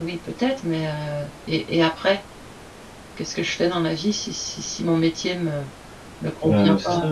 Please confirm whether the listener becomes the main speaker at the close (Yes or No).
Yes